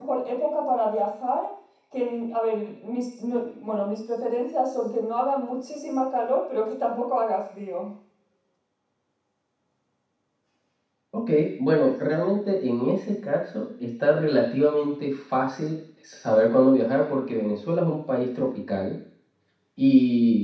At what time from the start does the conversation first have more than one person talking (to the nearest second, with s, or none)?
none